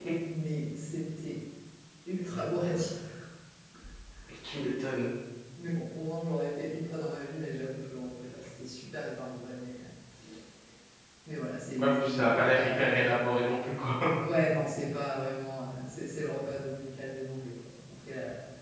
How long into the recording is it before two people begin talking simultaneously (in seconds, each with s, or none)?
11.8 s